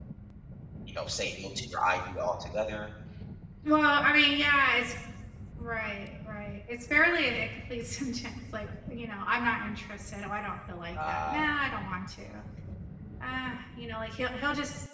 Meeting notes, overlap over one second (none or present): none